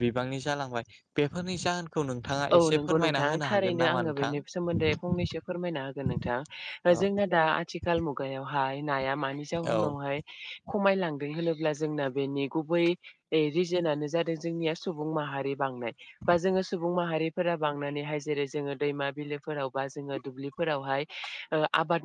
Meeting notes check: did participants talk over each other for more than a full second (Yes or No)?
Yes